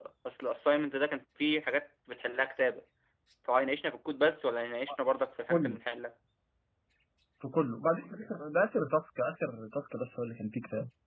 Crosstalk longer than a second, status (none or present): none